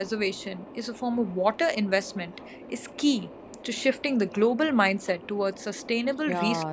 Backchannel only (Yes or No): No